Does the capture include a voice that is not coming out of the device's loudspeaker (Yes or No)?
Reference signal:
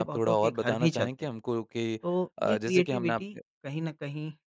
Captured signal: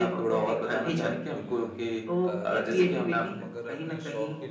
Yes